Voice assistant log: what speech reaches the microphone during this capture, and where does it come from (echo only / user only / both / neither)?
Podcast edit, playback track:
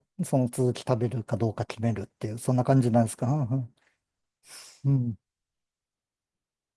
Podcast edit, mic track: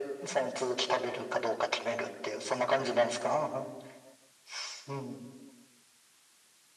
echo only